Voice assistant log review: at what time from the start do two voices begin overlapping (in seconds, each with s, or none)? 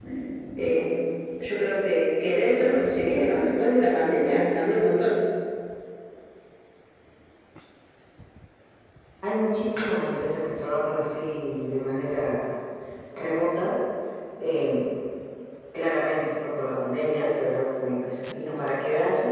none